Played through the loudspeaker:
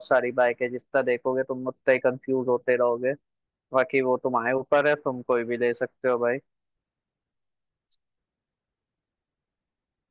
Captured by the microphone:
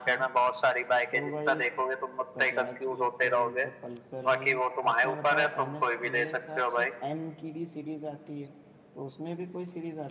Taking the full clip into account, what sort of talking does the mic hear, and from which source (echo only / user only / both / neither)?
both